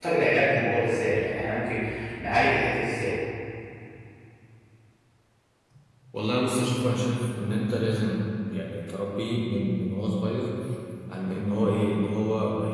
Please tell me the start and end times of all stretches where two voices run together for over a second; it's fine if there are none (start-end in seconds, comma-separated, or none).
none